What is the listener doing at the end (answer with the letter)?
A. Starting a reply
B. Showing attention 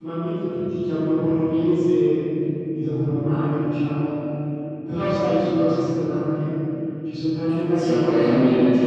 A